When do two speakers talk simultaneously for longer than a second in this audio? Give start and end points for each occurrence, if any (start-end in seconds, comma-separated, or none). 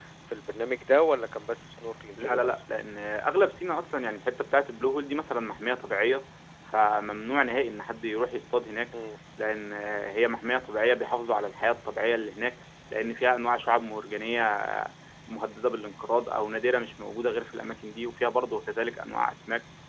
none